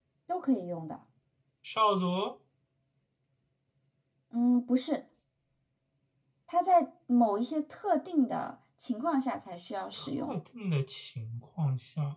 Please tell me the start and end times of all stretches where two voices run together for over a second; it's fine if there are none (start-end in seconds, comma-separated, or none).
none